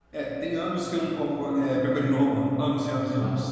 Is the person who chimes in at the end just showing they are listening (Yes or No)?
No